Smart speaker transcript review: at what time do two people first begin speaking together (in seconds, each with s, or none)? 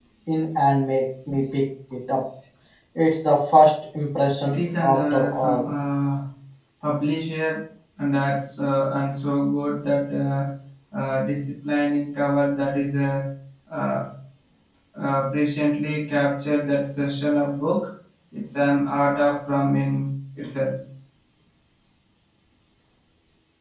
4.4 s